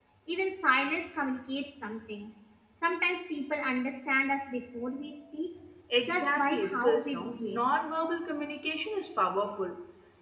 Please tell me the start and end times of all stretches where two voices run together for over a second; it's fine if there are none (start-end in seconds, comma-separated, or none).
6.0-7.6